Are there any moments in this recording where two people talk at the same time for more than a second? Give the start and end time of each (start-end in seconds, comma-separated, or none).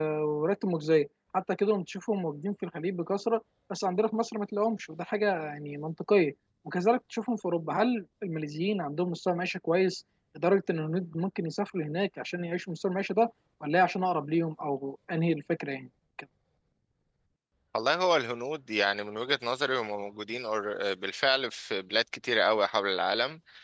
none